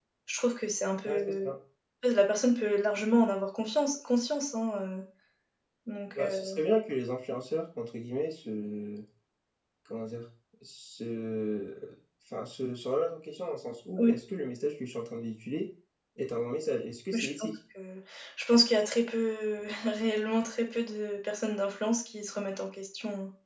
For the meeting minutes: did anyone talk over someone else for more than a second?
No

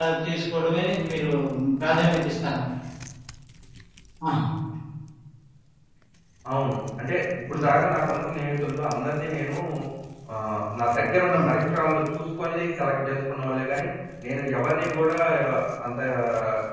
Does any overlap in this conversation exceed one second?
No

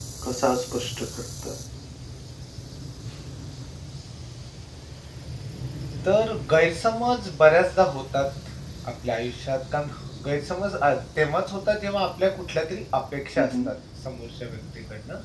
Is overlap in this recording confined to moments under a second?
Yes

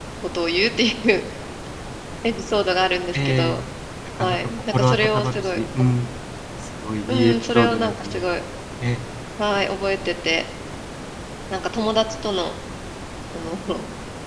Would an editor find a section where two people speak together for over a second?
Yes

